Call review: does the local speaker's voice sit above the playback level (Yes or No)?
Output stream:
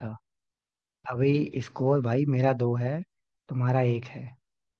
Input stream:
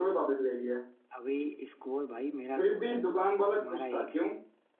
Yes